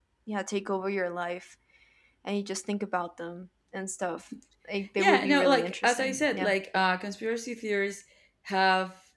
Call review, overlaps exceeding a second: present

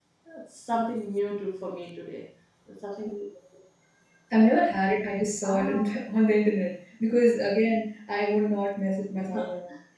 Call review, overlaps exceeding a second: none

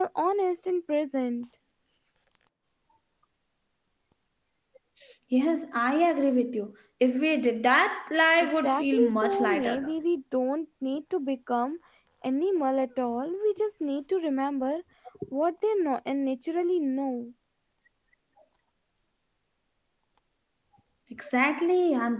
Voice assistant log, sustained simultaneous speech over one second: present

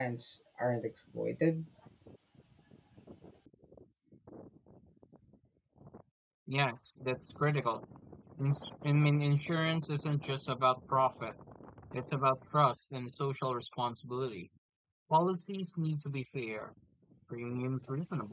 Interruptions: none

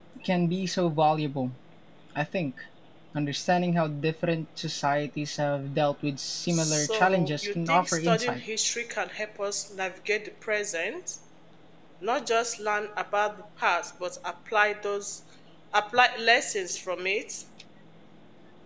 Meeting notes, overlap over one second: present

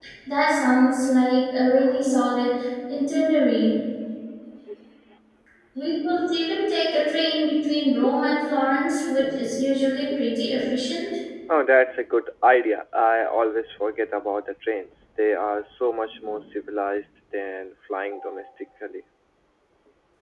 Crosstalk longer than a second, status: none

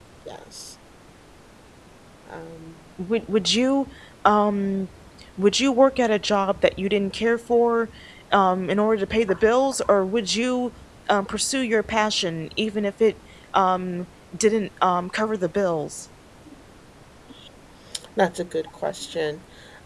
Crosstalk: none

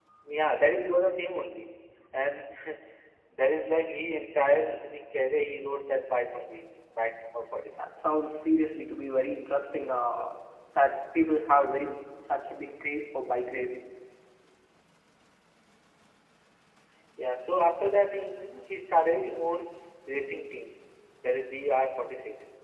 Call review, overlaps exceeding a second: none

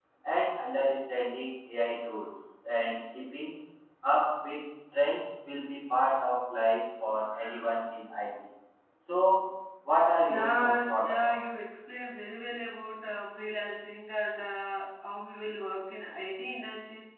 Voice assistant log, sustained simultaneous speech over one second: present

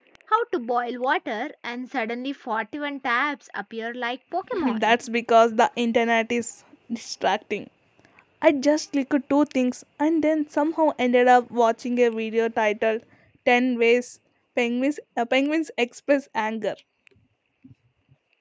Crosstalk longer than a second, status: none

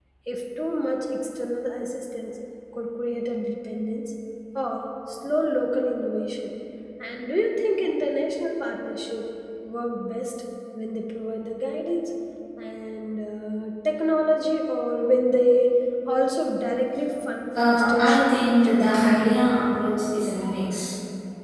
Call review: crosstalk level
present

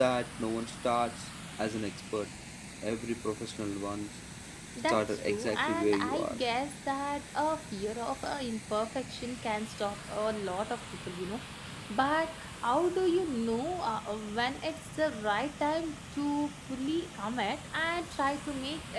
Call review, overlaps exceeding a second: present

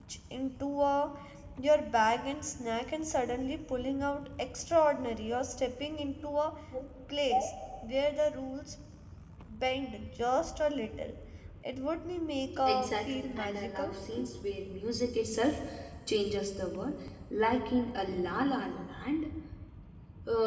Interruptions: present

